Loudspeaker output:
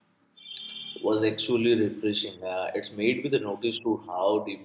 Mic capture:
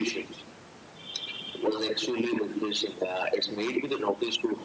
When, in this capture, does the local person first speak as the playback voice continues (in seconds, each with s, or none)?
none